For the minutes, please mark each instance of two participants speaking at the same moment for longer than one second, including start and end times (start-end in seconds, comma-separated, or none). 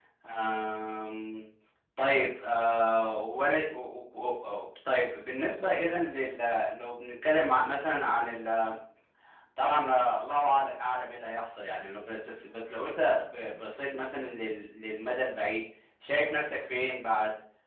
none